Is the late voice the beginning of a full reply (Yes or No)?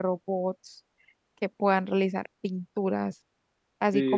Yes